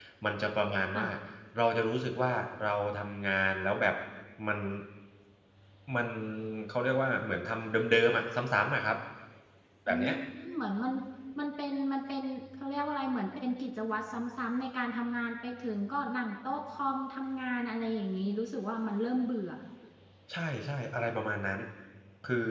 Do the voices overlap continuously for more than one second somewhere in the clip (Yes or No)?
No